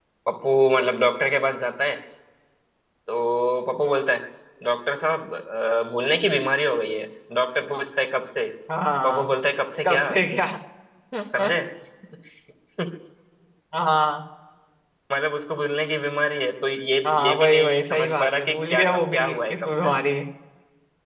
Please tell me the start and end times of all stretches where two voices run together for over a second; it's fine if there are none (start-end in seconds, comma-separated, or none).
17.1-19.9